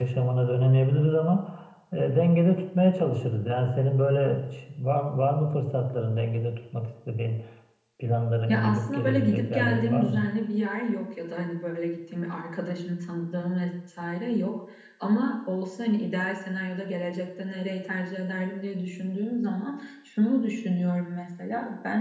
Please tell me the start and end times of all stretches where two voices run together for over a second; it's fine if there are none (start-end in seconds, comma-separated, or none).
8.5-10.2